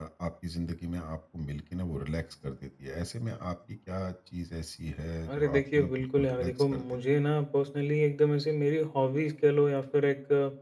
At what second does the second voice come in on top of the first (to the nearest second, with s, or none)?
5 s